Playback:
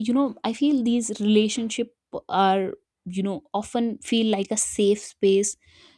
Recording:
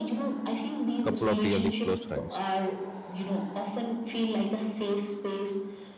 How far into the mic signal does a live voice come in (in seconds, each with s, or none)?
1.0 s